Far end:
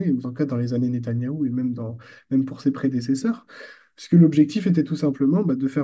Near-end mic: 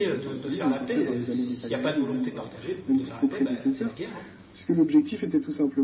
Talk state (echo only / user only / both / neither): both